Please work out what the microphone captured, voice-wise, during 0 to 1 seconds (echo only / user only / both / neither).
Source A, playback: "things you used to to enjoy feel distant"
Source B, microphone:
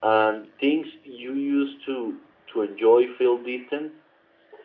echo only